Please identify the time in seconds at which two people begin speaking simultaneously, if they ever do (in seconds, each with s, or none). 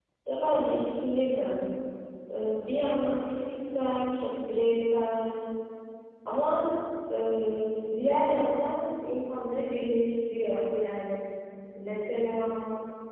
none